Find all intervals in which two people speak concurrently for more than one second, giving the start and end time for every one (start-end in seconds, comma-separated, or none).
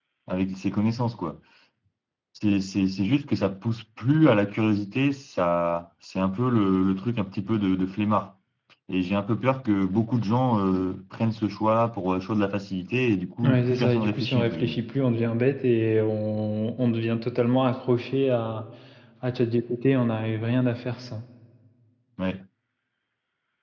13.4-14.8